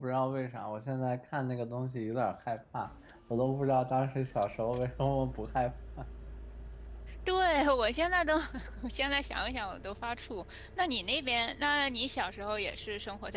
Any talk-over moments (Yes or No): No